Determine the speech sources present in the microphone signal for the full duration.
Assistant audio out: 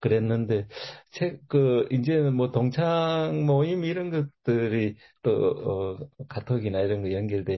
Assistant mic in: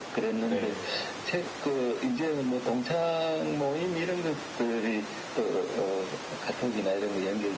both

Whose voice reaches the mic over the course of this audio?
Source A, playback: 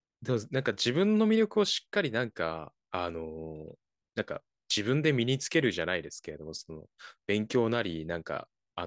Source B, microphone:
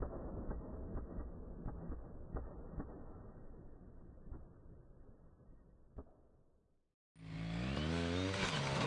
neither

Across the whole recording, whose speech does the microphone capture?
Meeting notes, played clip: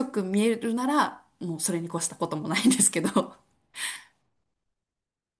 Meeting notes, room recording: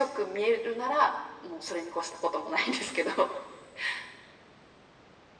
echo only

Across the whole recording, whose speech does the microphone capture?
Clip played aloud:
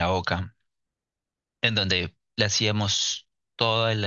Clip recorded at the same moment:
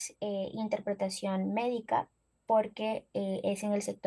user only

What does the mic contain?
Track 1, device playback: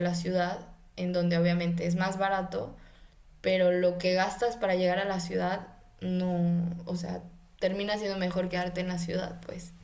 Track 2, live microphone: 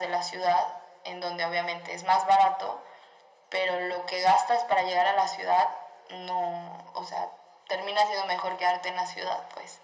echo only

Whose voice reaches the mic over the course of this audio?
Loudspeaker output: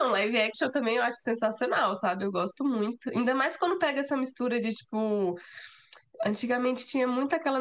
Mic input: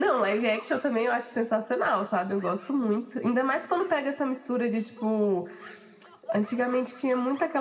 echo only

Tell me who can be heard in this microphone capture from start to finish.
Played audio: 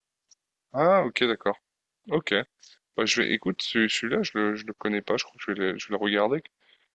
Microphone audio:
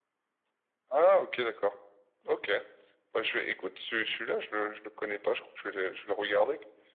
echo only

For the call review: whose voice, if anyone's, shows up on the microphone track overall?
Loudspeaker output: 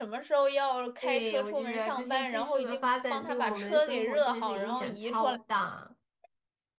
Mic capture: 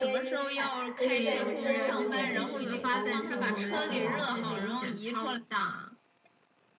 both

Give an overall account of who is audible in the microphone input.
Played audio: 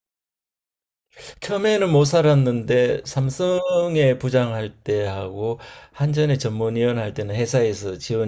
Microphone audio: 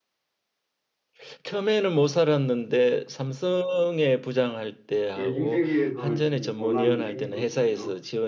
both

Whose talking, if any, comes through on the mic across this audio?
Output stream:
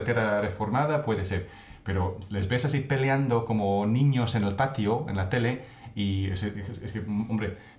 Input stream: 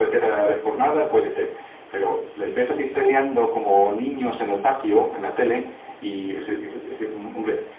echo only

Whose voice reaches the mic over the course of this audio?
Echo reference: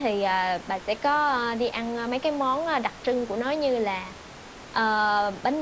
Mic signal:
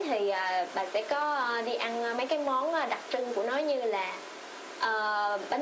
echo only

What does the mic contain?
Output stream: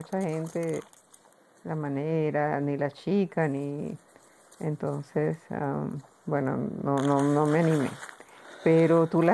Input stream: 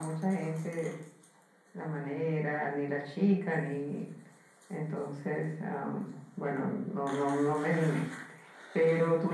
echo only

